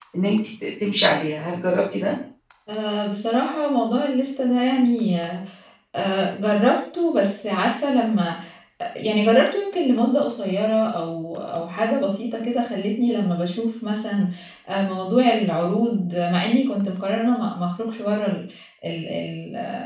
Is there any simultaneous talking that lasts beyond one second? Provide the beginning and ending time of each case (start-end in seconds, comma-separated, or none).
none